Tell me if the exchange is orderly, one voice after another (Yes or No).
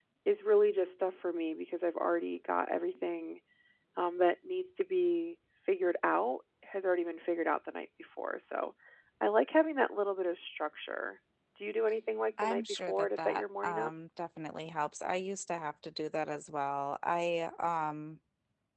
No